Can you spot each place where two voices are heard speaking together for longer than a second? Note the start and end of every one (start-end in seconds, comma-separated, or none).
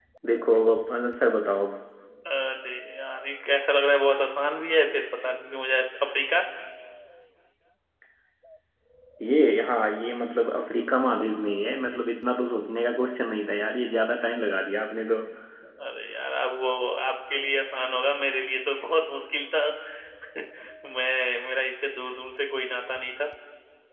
none